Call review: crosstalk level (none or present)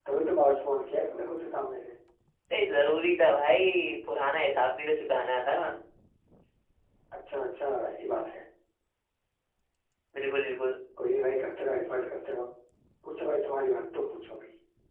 none